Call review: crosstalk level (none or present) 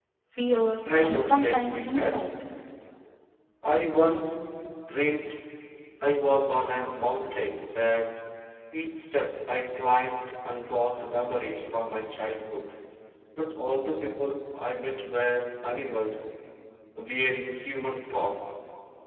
present